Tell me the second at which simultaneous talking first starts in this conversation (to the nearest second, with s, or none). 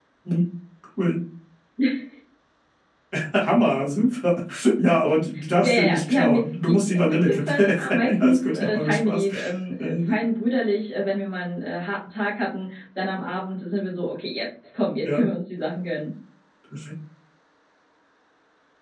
6 s